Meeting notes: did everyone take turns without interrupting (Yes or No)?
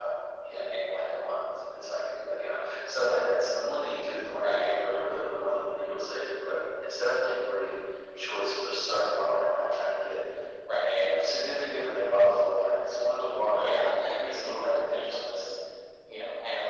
No